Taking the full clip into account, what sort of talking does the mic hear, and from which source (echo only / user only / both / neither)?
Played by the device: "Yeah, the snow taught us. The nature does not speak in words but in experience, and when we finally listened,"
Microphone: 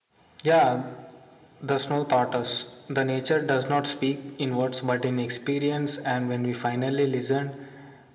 echo only